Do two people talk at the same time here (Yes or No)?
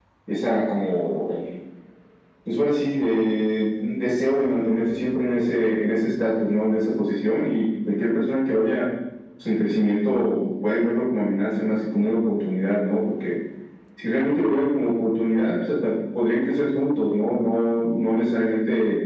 No